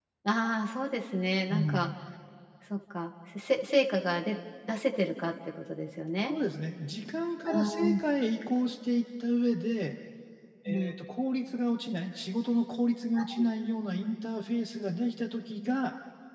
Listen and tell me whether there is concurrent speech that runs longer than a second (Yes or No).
No